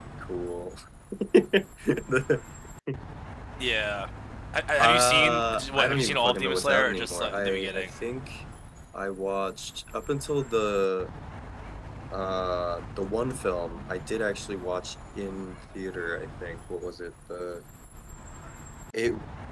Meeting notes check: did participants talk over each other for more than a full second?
Yes, from 4.8 s

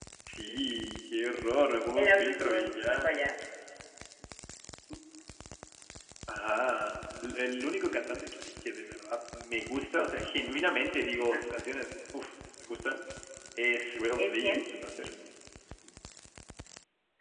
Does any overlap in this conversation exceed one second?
Yes, from 2.0 s

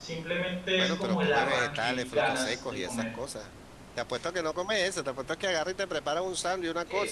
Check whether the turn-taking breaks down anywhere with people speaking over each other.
Yes, from 0.8 s

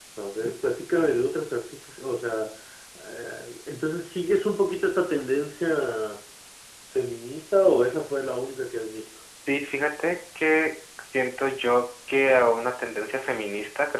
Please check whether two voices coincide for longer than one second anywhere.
No

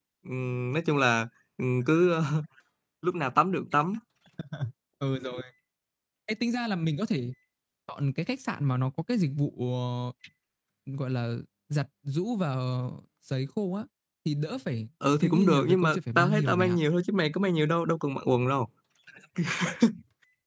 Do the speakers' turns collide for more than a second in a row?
Yes, from 15.0 s

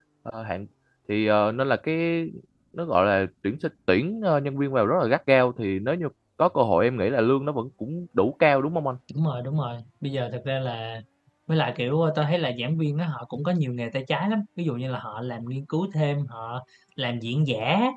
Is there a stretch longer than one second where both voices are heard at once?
No

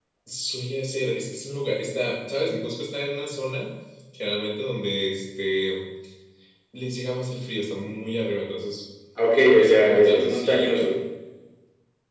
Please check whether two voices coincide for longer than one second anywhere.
Yes, from 9.5 s

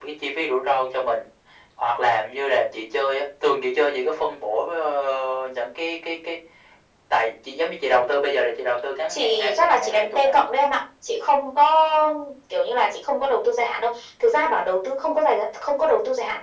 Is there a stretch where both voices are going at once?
Yes, from 9.1 s

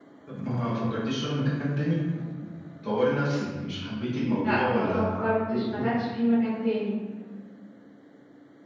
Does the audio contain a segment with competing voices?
Yes, from 4.4 s

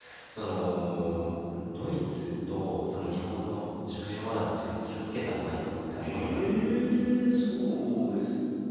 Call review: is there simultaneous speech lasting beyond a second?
No

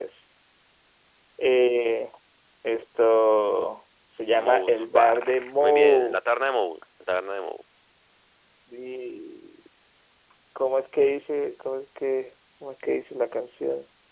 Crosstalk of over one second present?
Yes, from 4.3 s

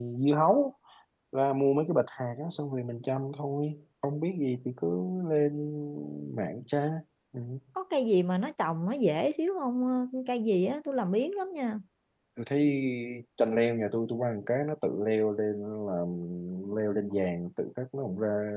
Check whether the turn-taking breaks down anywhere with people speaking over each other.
No

